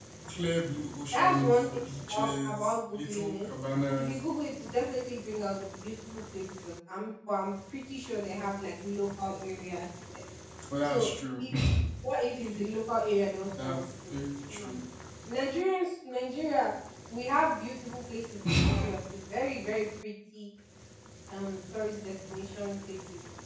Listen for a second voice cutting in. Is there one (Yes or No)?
Yes